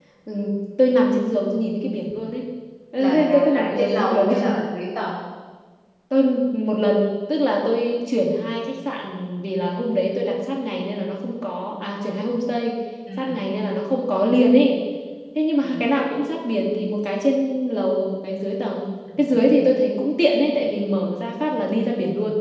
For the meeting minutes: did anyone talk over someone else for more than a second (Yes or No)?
Yes